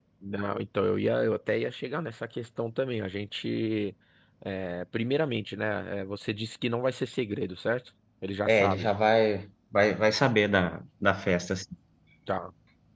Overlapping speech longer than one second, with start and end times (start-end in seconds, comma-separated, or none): none